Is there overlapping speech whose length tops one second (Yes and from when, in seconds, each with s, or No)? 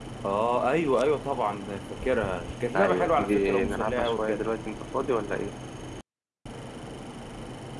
Yes, from 2.8 s